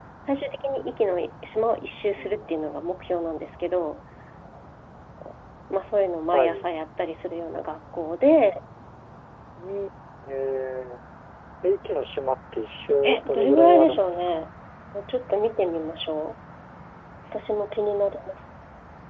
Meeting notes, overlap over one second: present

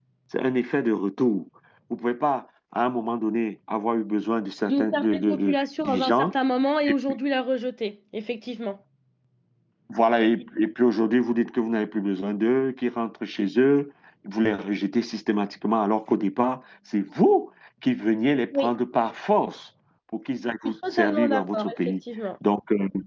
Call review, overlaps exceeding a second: present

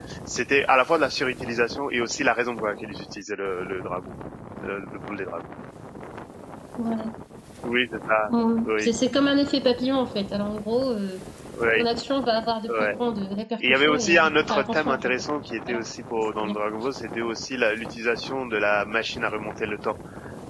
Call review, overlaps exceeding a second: present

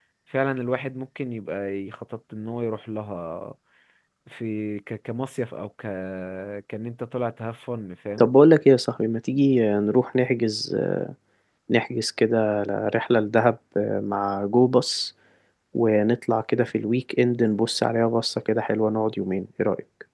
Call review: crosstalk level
none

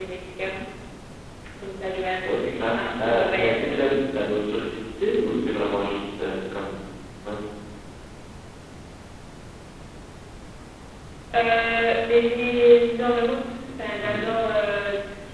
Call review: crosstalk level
present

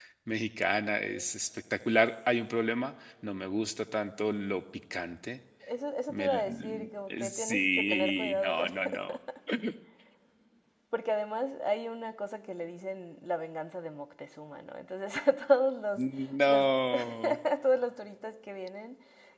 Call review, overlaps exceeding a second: present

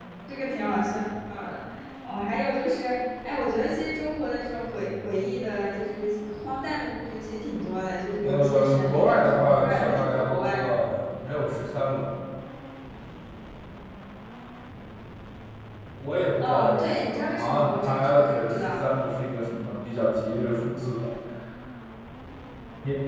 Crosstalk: present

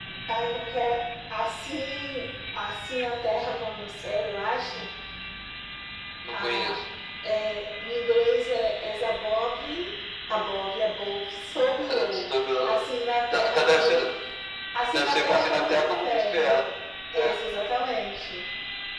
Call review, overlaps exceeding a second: present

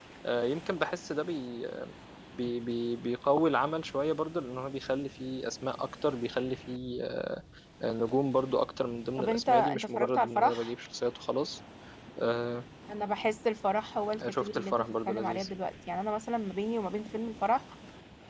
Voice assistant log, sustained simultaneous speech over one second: present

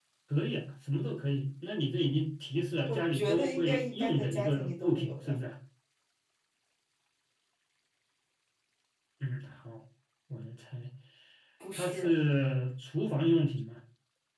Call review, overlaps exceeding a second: present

